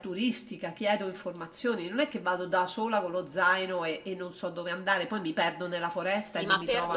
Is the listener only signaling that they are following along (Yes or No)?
No